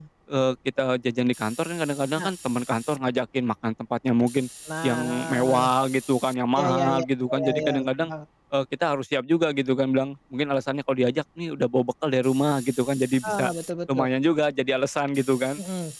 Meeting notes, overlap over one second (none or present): present